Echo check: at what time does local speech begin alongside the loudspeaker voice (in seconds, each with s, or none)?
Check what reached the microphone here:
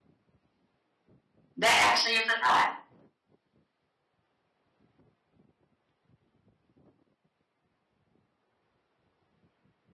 1.6 s